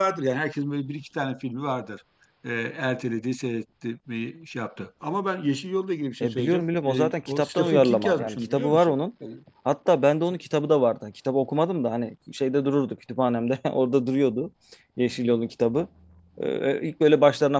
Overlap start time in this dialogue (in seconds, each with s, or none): 6.2 s